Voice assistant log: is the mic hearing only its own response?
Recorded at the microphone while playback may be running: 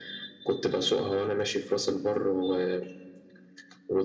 Yes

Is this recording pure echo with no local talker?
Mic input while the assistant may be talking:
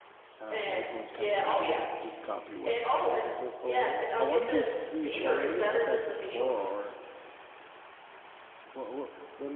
No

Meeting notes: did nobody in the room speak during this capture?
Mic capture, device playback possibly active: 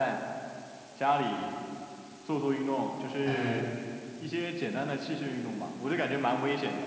No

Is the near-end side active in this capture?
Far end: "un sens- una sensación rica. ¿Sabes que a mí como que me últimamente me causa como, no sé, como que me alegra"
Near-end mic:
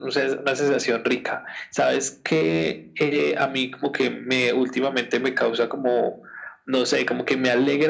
No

